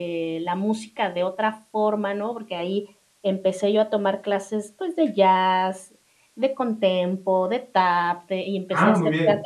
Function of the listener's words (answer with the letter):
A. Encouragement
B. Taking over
B